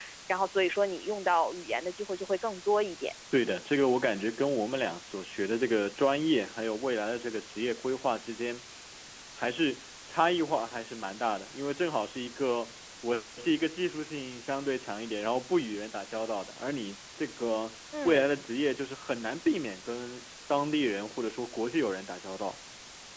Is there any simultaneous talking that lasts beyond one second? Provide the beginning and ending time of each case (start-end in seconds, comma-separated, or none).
none